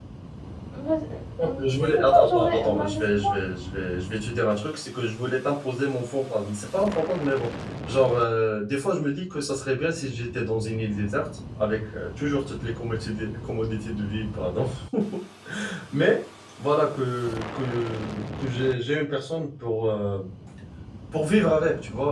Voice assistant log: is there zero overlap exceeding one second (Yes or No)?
No